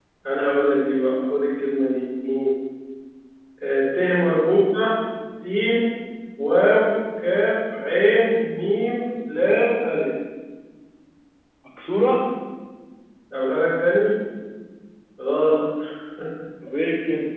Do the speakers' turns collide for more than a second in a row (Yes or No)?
No